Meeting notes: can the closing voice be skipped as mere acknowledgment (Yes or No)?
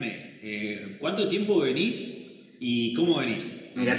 No